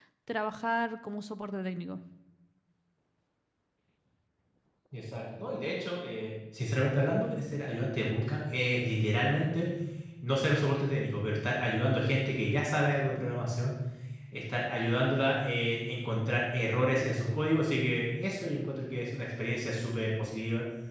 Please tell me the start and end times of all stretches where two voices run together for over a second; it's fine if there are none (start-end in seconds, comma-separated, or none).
none